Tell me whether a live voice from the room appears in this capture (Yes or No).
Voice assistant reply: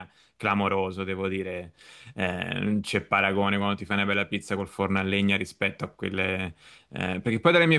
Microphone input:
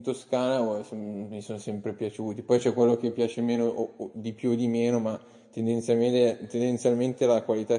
Yes